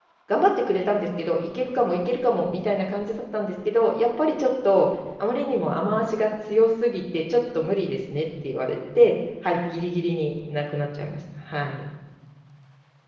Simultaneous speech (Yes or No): No